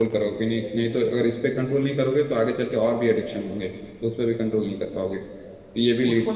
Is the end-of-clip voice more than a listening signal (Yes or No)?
Yes